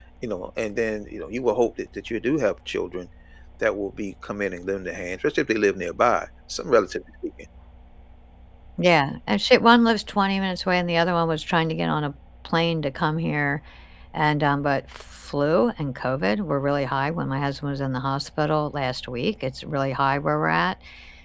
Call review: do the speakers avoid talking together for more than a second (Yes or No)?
Yes